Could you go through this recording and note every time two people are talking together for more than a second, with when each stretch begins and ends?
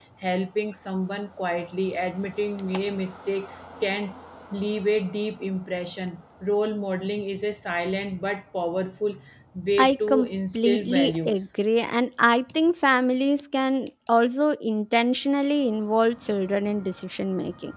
9.8-11.5

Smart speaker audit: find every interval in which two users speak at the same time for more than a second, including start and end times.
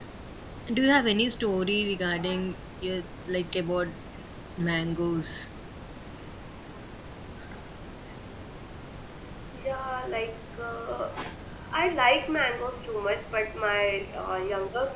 none

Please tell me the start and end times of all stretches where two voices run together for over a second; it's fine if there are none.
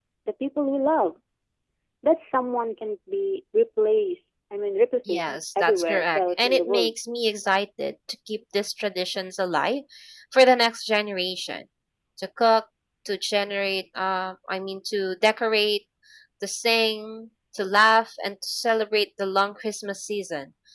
5.1-6.9

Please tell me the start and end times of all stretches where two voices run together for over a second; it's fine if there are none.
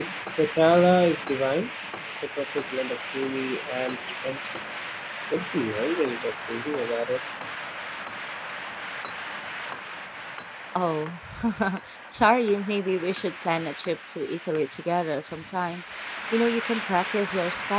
none

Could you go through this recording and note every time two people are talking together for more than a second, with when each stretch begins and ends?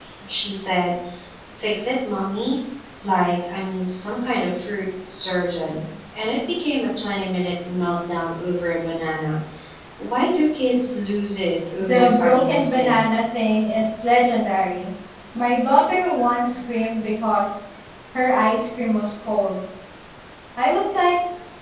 11.8-13.2

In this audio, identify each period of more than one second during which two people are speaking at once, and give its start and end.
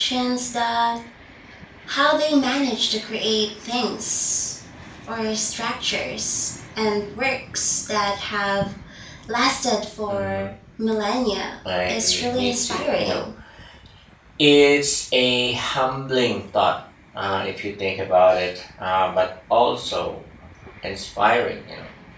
11.9-13.2

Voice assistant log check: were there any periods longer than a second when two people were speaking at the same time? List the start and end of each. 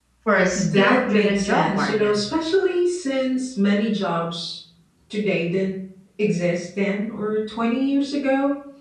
0.6-2.1

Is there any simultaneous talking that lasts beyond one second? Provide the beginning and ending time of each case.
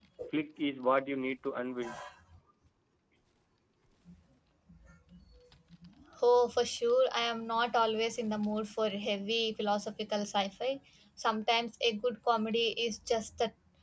none

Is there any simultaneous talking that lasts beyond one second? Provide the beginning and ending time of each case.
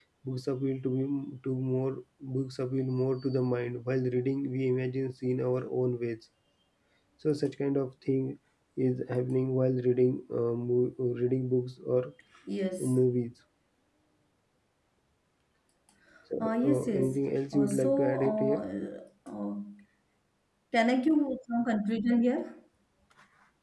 16.4-18.6

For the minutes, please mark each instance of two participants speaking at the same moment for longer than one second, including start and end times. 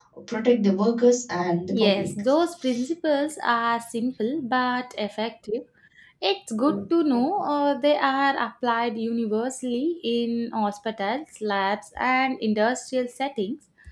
none

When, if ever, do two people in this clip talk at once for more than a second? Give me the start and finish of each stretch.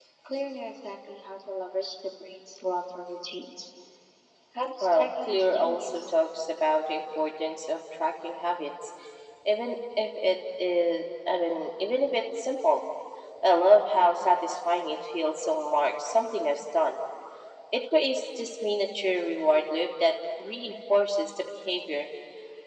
4.8-6.1

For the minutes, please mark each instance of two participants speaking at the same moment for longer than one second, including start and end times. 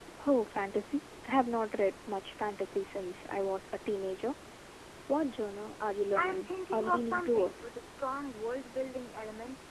6.1-7.8

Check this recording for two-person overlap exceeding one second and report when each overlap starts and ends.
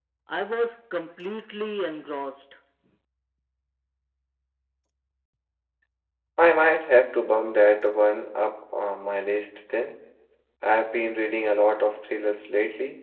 none

